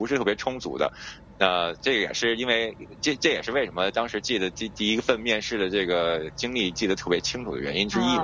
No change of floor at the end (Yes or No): No